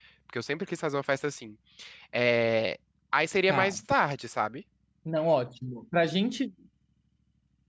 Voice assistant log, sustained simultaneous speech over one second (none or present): none